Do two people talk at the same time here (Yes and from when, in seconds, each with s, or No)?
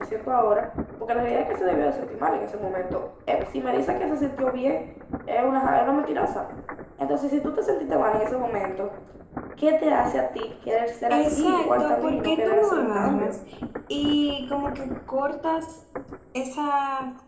Yes, from 11.1 s